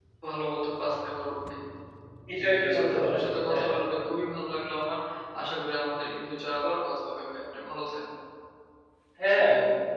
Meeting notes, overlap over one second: present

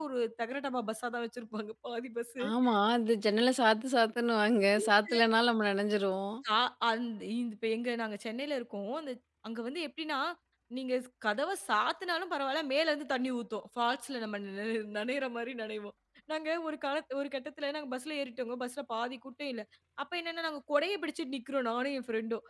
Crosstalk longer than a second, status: none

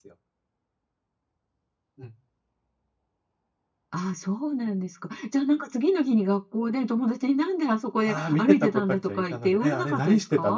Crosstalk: present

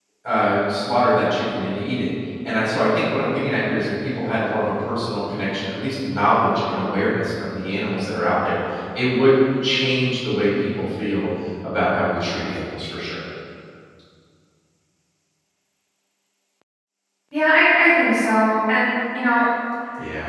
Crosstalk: none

